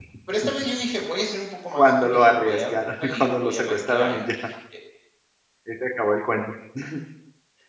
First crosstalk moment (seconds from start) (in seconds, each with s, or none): 1.7 s